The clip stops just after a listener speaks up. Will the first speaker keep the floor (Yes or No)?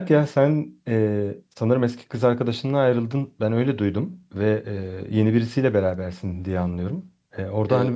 Yes